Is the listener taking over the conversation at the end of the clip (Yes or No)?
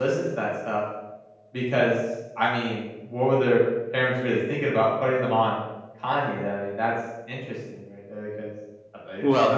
Yes